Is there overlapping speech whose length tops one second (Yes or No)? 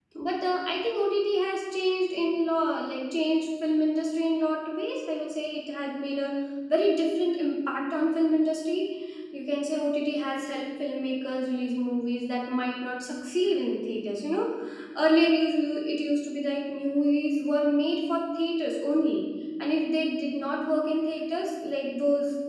No